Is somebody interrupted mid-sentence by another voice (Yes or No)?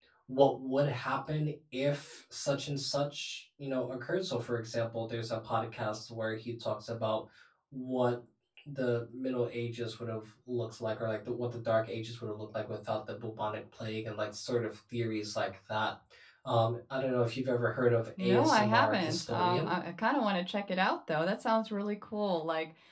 Yes